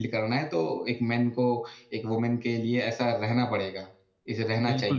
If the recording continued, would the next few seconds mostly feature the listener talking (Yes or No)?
Yes